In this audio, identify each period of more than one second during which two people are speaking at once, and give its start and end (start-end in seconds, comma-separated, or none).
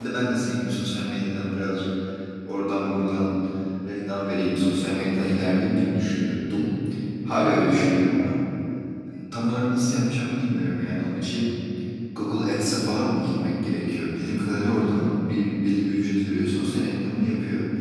none